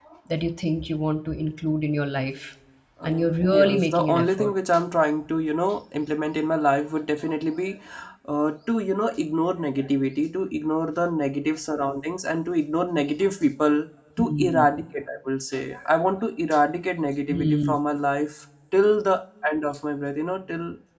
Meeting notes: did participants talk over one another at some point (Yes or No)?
Yes